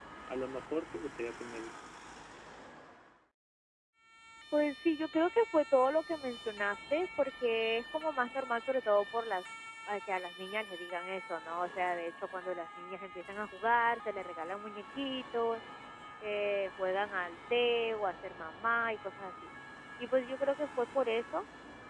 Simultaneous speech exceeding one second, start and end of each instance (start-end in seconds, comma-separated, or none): none